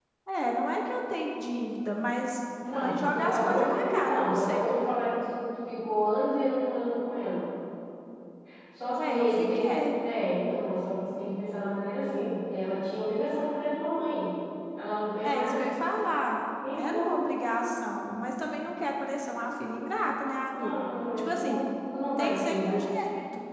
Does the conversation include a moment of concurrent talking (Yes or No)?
Yes